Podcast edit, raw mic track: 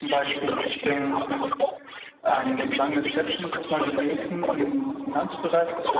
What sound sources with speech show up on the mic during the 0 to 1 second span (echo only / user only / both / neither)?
both